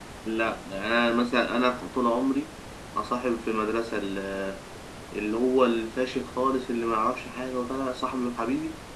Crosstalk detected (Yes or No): No